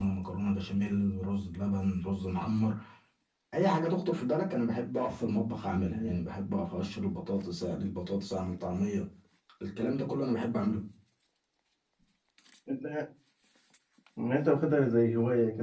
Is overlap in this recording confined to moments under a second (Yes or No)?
Yes